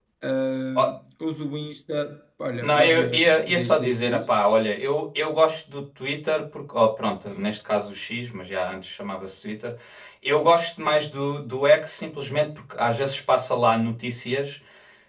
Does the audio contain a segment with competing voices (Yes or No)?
Yes